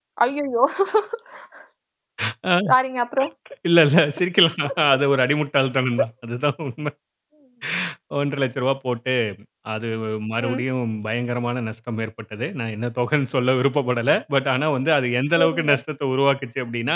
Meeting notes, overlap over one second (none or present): none